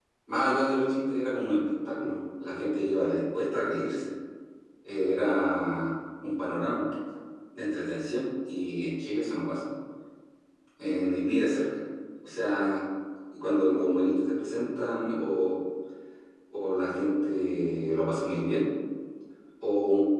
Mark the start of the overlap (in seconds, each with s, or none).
none